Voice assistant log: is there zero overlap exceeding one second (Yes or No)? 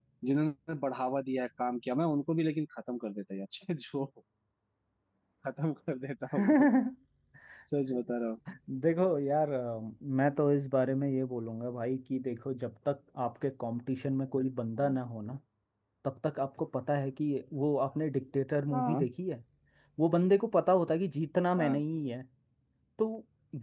Yes